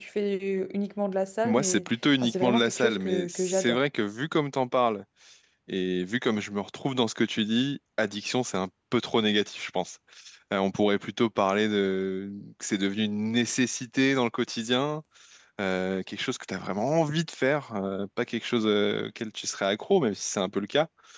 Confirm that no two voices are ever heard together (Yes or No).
No